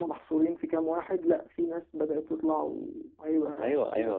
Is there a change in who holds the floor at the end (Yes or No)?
Yes